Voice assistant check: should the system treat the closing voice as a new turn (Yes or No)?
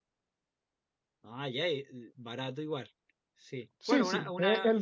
Yes